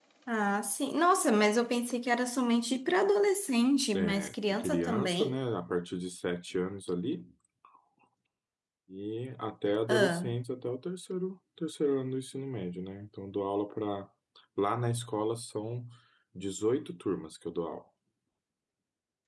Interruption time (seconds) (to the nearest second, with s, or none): 4 s